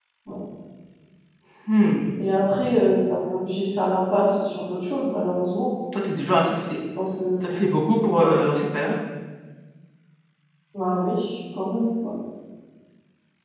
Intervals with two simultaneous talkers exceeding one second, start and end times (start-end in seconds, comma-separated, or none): none